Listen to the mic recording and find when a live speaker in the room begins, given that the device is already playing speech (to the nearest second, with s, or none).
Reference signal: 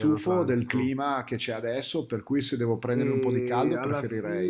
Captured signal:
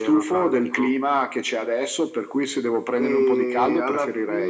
none